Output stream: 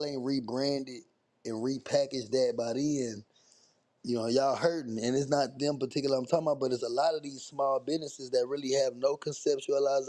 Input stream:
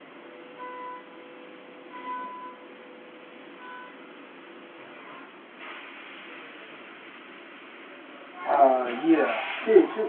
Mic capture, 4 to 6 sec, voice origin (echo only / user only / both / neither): neither